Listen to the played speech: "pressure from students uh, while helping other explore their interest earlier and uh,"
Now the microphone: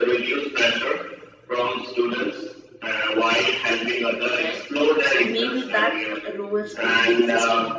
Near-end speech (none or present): present